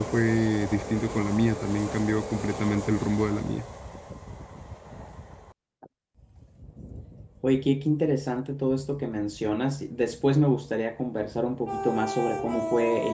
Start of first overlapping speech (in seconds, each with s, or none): none